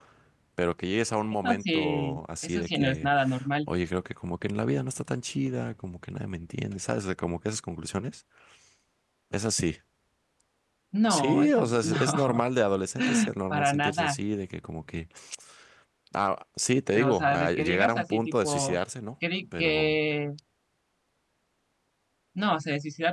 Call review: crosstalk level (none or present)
present